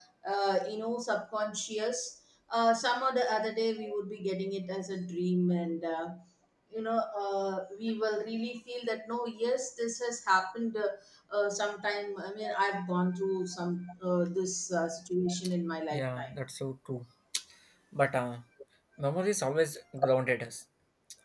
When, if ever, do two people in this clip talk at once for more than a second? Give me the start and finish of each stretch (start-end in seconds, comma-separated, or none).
none